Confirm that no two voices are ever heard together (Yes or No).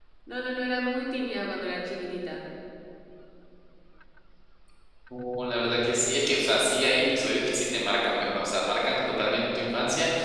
Yes